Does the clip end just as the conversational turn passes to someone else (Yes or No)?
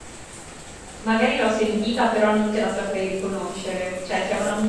No